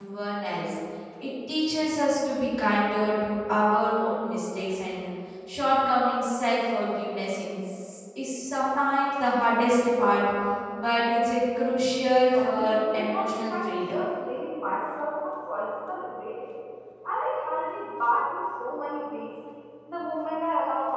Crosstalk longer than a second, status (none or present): present